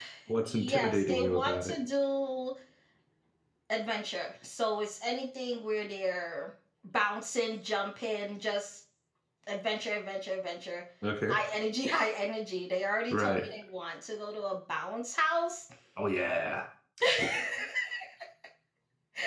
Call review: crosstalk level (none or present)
present